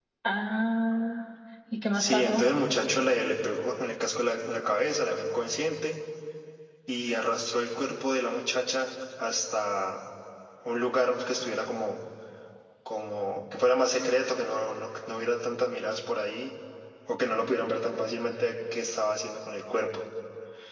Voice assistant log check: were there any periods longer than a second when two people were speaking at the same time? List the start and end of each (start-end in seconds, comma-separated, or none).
none